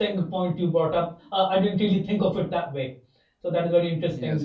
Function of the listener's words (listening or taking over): listening